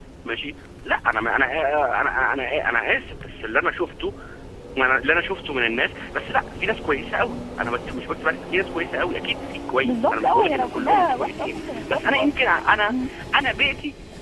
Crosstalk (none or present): present